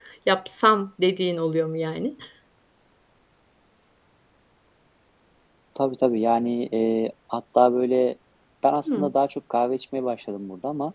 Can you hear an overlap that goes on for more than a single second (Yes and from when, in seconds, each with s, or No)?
No